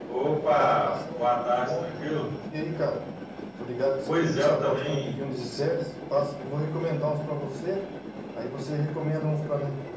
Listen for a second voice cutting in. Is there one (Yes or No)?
Yes